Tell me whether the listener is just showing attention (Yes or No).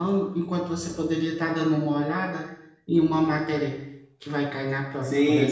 No